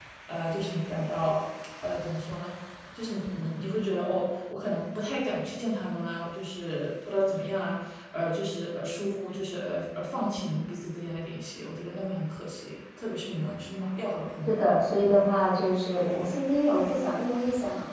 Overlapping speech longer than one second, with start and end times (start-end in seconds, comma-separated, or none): none